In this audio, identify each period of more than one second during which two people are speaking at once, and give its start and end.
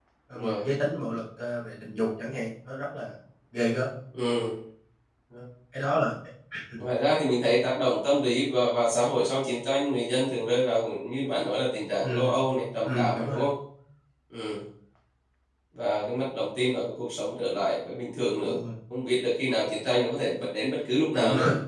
none

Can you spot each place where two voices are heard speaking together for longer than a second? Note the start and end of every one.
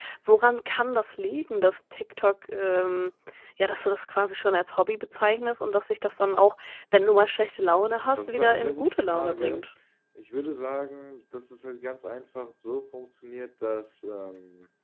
8.2-9.7

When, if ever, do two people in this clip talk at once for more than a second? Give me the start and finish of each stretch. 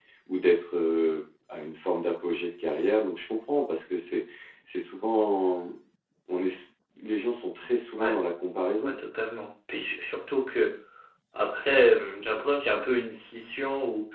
none

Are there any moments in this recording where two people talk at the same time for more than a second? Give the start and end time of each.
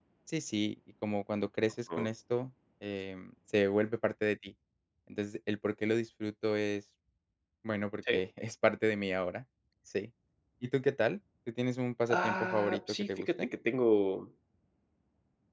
12.1-13.5

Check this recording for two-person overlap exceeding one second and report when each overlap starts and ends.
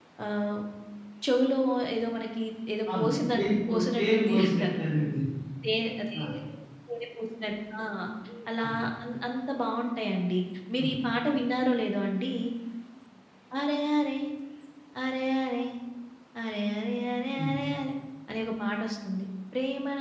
2.9-4.8

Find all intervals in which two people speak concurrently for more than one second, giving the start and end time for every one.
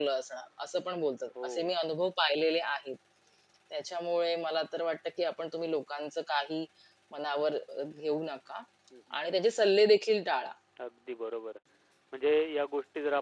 none

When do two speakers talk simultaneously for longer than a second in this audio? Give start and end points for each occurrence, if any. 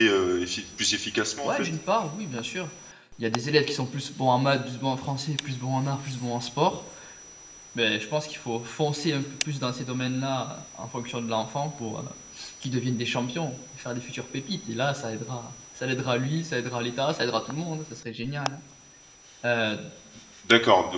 none

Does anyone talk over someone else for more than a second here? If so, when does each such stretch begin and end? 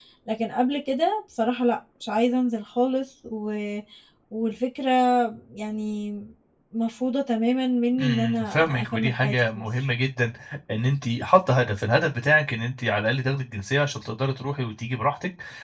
8.0-9.9

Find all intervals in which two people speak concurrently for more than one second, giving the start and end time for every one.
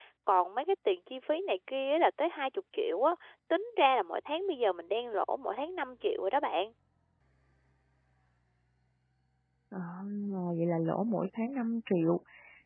none

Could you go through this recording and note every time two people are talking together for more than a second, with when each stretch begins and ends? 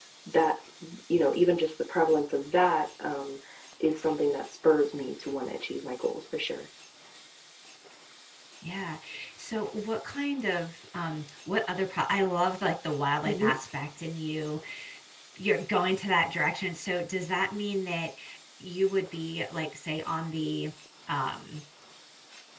none

